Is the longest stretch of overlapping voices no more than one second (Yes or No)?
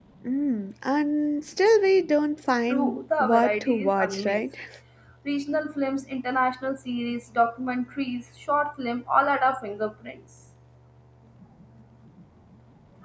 No